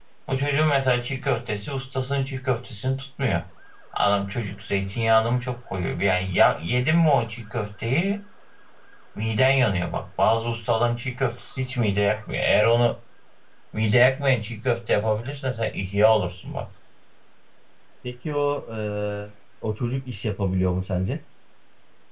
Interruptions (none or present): none